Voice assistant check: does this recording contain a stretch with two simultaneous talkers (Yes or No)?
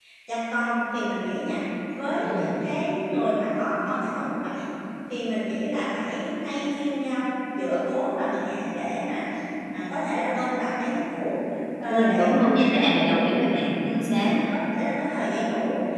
Yes